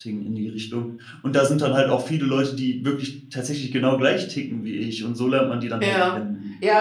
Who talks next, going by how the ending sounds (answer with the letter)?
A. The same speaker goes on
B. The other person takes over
B